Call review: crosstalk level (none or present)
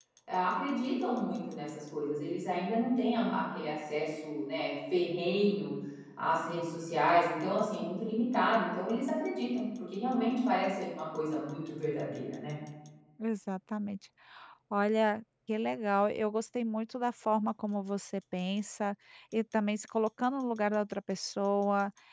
none